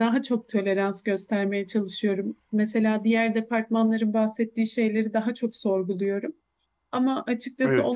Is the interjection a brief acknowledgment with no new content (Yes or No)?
Yes